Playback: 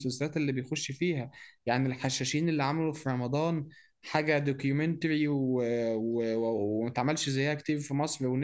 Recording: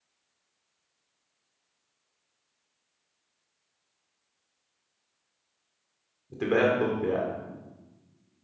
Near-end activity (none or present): present